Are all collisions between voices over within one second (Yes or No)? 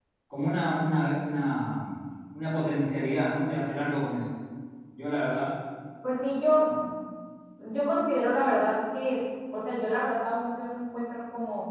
Yes